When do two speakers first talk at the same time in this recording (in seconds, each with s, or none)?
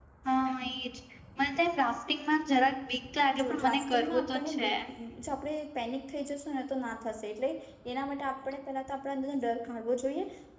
3.3 s